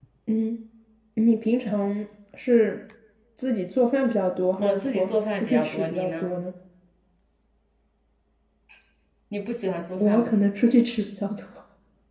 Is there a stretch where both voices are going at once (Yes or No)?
Yes